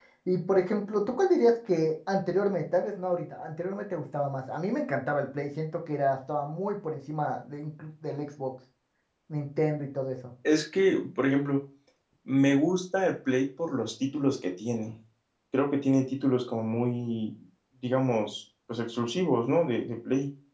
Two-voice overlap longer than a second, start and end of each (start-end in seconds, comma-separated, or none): none